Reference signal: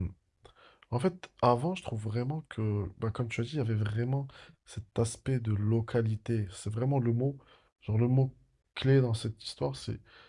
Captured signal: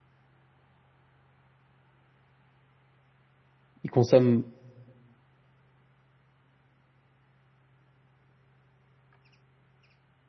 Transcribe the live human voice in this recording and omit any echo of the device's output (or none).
il consomme,